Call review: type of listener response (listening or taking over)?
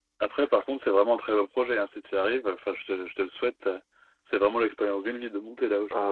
taking over